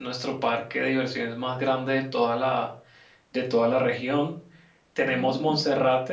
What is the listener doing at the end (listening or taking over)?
listening